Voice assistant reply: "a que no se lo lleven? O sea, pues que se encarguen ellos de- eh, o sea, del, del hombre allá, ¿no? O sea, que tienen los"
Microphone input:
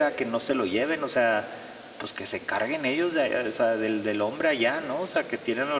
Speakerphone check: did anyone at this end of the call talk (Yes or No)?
No